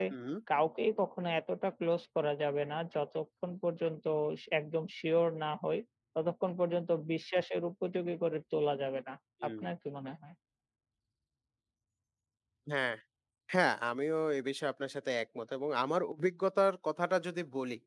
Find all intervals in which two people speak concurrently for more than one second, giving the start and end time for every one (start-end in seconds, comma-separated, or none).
none